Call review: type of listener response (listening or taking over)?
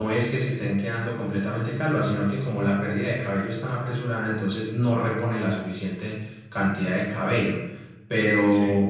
listening